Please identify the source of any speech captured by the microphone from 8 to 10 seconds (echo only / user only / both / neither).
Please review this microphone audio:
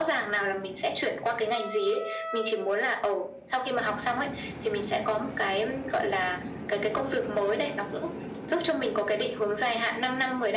echo only